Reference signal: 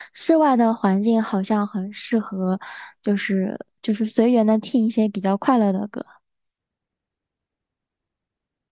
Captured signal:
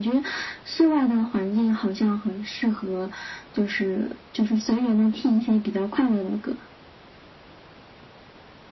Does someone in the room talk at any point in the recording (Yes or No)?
No